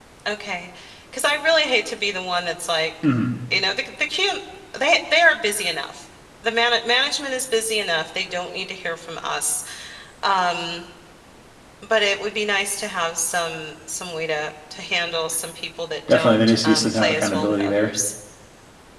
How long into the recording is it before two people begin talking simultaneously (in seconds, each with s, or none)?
16.1 s